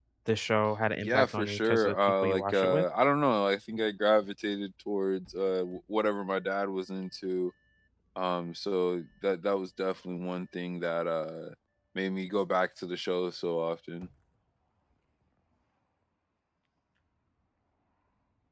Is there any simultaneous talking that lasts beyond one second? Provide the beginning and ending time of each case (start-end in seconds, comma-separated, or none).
1.0-2.8